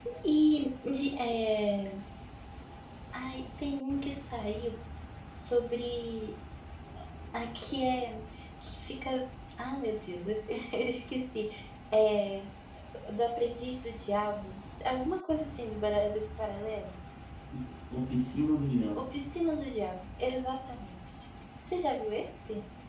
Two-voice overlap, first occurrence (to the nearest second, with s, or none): none